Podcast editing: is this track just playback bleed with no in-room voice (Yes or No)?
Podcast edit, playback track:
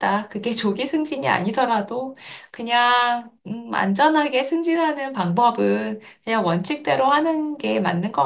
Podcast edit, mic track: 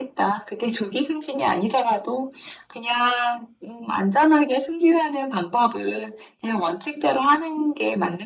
Yes